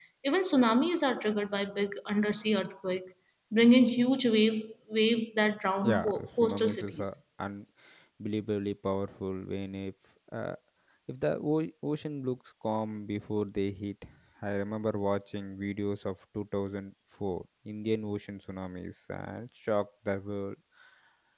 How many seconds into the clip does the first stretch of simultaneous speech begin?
5.8 s

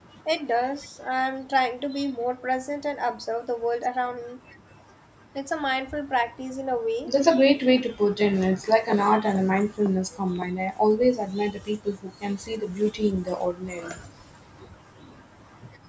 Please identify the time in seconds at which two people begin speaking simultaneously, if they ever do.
none

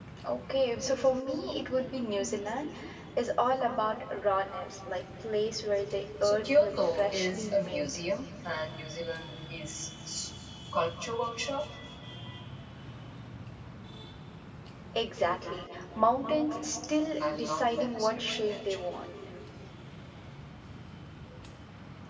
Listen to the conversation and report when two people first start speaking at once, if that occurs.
6.2 s

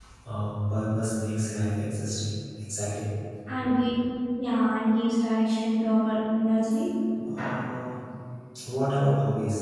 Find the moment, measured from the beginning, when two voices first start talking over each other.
none

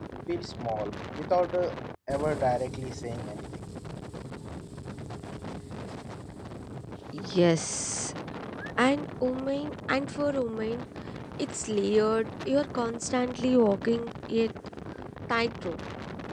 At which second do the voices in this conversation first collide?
none

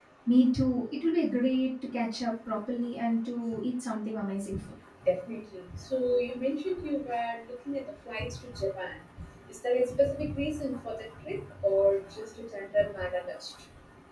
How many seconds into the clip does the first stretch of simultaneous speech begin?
none

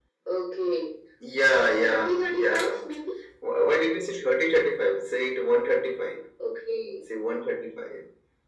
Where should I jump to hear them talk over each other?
1.6 s

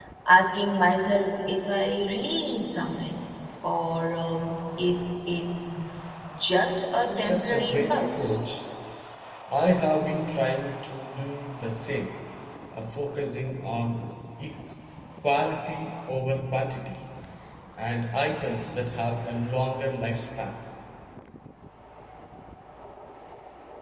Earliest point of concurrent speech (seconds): 7.0 s

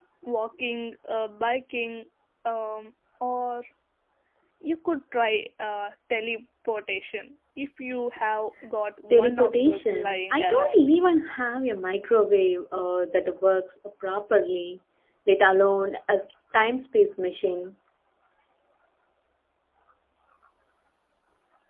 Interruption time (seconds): 9.1 s

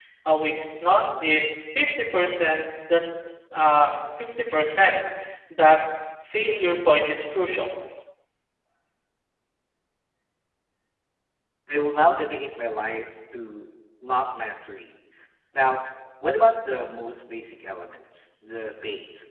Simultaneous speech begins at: none

